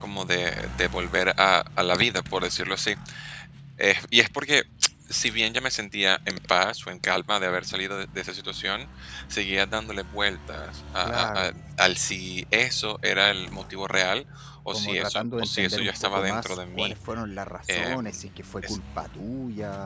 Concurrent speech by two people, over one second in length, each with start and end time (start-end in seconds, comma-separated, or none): 14.7-16.9